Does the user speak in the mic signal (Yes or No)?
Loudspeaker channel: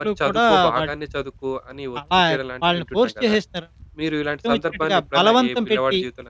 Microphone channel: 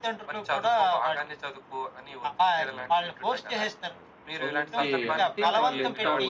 Yes